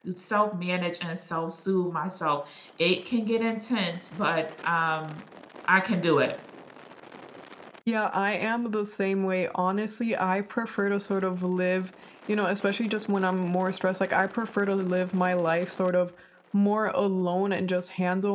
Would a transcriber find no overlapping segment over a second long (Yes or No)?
Yes